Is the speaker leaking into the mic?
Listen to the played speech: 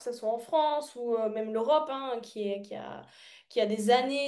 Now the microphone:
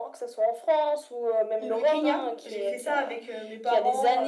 Yes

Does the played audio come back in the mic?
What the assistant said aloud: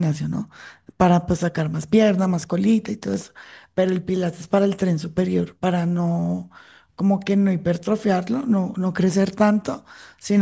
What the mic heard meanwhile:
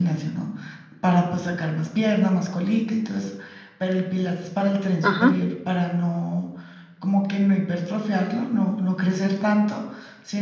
Yes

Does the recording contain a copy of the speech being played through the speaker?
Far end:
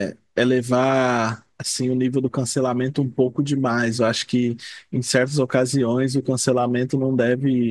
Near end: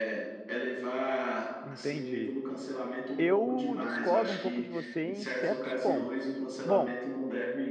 Yes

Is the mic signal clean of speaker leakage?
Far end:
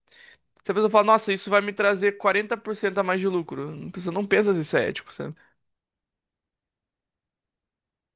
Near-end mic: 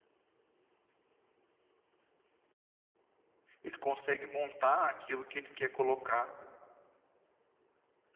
Yes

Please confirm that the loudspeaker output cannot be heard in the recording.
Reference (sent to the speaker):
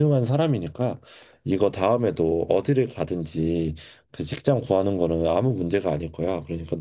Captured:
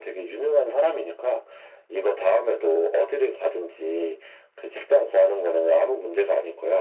No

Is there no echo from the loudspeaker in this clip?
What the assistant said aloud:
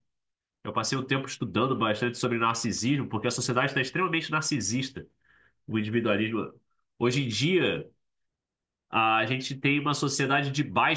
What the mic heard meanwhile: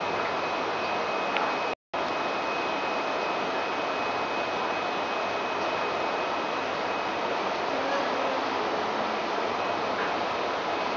Yes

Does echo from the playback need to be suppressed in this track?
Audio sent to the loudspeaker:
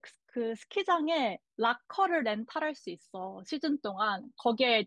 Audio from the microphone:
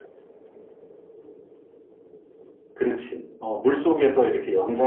No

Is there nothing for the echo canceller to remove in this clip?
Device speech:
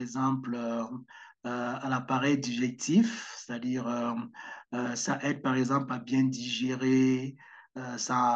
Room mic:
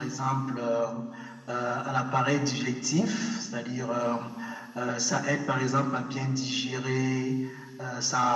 No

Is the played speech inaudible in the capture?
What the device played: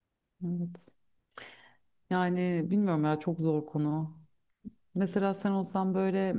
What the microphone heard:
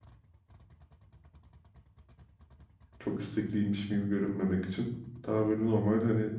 Yes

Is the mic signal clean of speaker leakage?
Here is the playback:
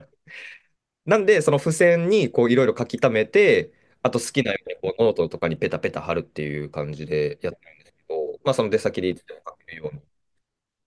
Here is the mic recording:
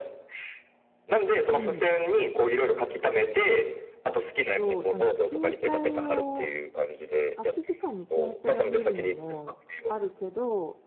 No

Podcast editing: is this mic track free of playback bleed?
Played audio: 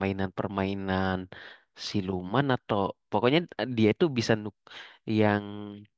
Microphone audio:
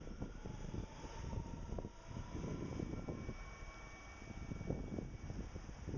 Yes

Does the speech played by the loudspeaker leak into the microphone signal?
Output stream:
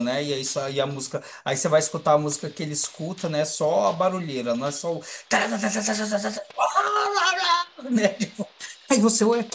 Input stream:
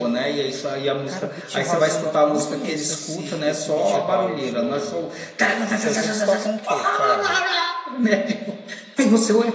Yes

